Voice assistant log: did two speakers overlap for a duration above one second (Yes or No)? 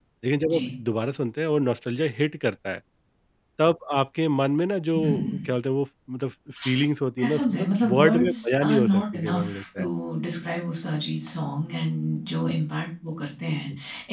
Yes